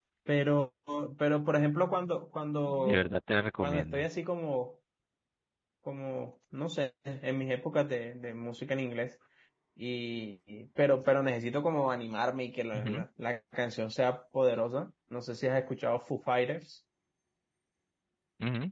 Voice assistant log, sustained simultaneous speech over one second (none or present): none